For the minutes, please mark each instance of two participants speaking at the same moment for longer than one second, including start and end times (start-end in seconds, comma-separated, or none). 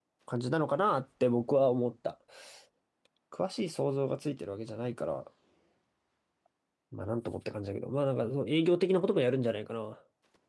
none